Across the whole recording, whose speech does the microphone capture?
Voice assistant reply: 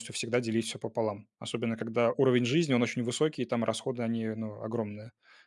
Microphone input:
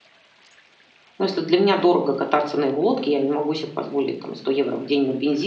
user only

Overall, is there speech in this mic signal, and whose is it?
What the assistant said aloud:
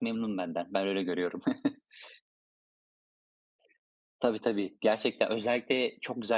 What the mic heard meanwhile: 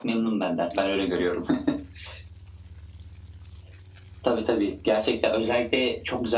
echo only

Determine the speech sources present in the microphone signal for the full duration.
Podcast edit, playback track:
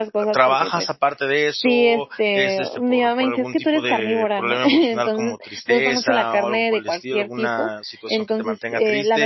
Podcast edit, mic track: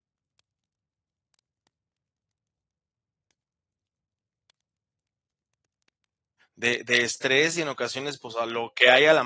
user only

